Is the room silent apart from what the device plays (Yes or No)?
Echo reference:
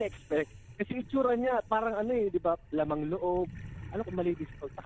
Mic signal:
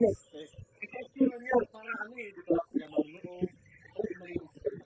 Yes